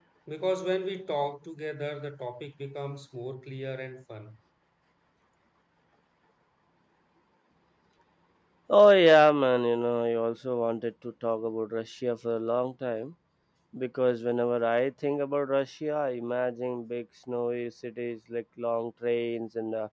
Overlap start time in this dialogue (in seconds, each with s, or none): none